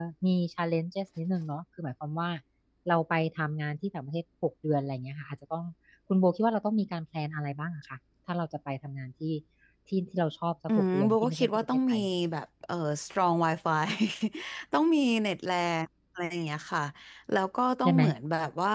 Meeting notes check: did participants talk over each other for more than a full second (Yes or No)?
Yes